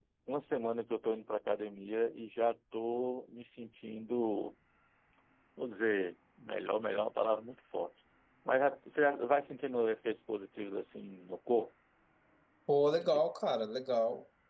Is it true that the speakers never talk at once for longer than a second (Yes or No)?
Yes